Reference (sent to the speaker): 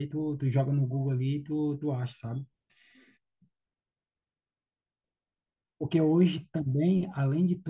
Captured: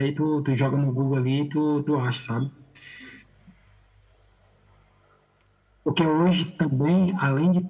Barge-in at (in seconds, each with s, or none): none